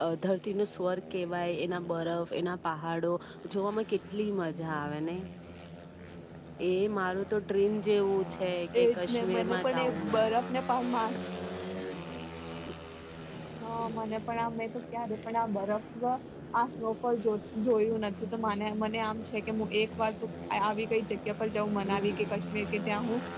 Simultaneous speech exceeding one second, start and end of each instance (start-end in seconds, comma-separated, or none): 8.8-10.2